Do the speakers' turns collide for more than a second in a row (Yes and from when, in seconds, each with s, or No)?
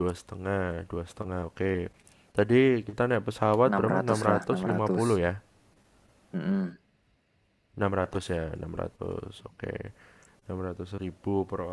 Yes, from 3.7 s